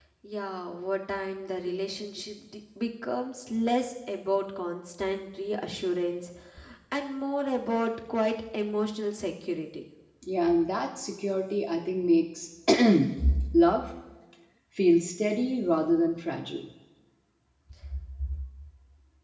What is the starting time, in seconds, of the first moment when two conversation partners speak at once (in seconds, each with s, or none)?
none